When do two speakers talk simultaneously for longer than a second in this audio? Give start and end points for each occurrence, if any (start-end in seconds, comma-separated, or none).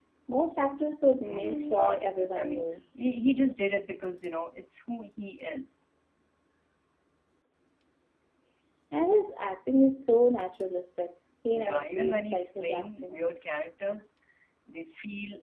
1.2-2.6, 11.5-13.2